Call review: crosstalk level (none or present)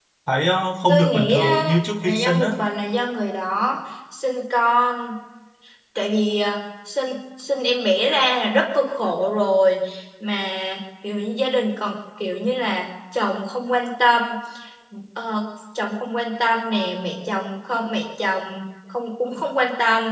present